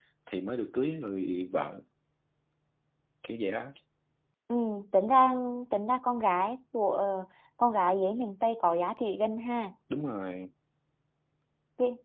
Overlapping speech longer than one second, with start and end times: none

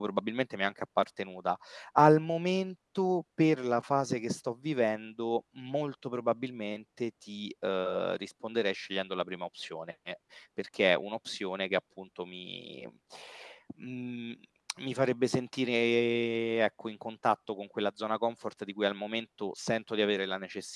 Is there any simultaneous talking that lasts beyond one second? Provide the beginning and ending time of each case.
none

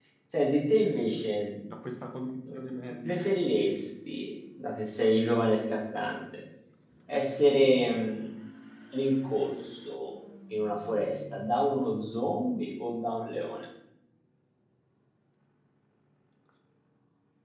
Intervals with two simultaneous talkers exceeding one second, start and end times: none

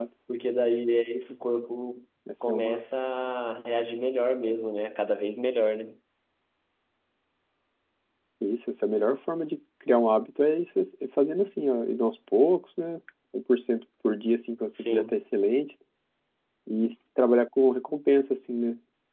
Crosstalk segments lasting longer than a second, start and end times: none

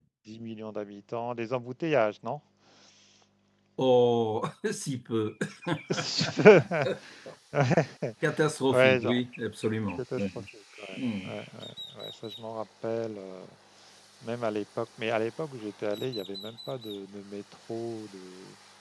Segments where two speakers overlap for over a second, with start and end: none

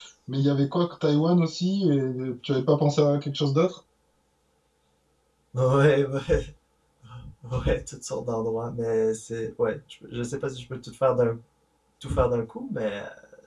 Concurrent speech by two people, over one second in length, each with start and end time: none

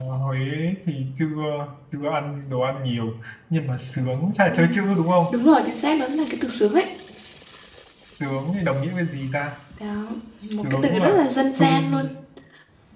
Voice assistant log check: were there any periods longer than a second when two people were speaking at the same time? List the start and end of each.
10.4-12.1

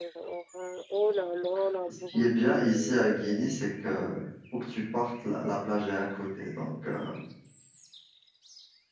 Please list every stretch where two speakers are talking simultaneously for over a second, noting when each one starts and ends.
2.1-3.6

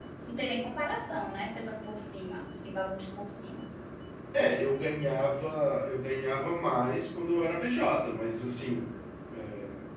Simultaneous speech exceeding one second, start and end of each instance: none

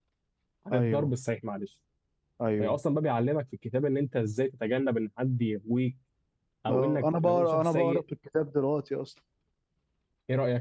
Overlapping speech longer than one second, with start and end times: 6.7-8.0

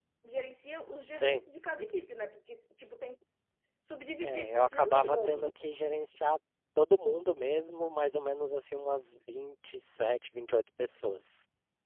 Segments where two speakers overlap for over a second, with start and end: 4.2-5.5

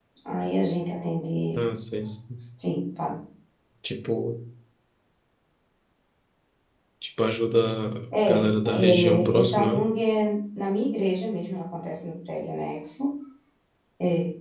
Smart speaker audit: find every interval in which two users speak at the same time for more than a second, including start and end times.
8.3-9.8

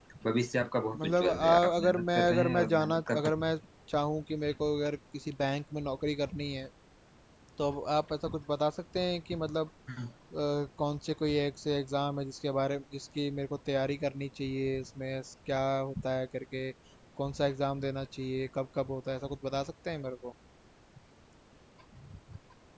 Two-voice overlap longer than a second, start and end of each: 1.0-3.5

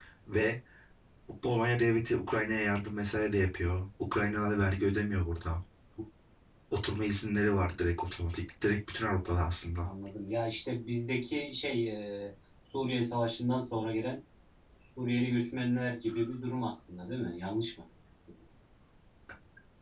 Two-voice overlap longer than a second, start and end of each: none

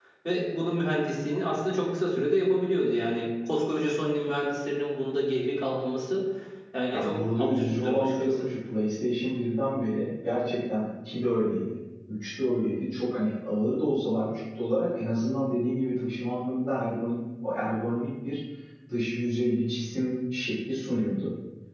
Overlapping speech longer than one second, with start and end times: 6.9-8.4

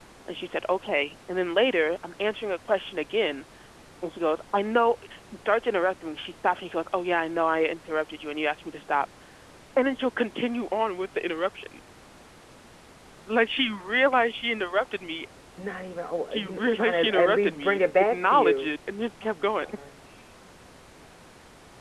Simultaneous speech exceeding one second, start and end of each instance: 16.3-18.7

